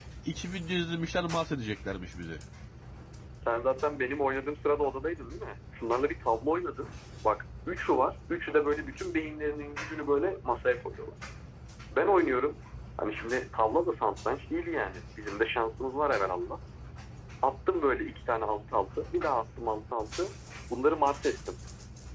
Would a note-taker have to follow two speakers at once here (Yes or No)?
No